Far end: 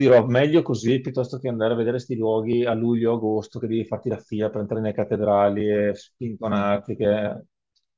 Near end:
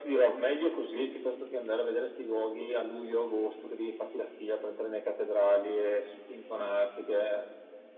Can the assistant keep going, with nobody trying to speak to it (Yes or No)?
Yes